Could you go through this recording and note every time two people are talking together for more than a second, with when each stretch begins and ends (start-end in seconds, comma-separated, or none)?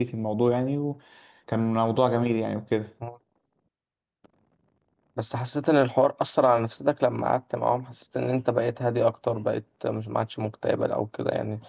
none